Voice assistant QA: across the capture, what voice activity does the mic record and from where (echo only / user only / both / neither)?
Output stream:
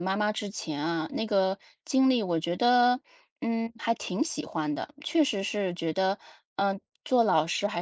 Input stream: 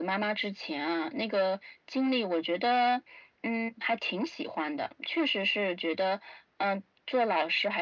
echo only